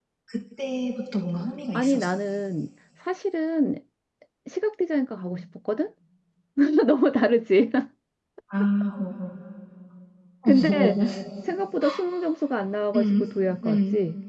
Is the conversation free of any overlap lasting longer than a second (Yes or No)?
Yes